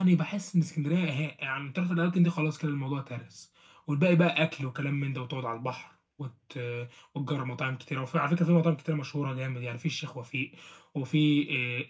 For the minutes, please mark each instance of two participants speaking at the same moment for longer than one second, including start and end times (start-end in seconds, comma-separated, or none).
none